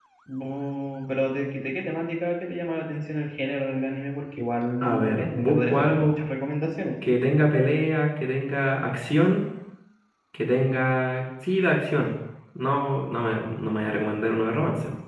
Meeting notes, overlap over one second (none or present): present